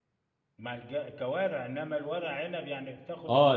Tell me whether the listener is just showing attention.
No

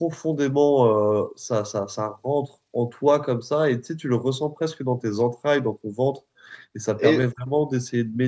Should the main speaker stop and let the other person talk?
No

